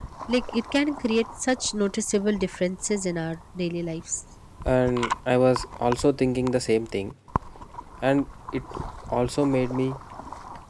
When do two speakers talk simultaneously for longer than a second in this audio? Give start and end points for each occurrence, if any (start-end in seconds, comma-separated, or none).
none